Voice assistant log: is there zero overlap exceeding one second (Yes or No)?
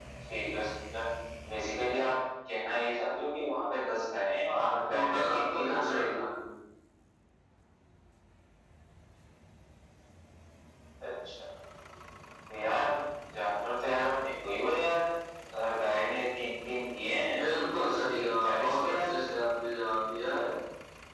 No